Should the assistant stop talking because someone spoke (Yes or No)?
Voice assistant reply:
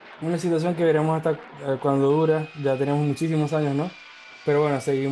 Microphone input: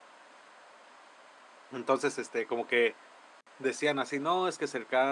Yes